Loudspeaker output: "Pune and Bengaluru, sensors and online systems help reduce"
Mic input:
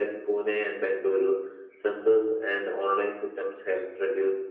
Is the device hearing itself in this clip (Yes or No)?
Yes